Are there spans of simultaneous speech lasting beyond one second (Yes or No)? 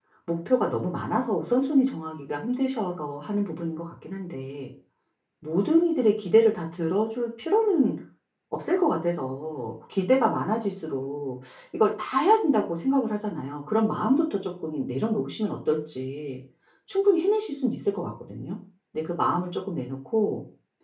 No